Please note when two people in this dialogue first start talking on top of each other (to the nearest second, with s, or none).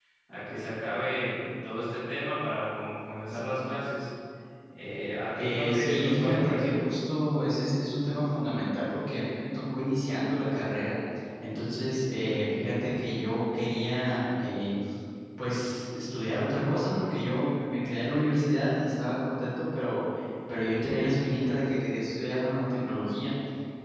5 s